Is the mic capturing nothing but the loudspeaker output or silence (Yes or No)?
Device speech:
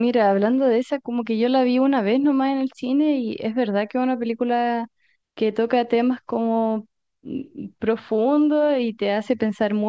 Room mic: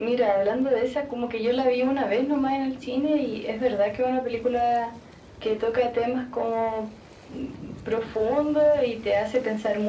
Yes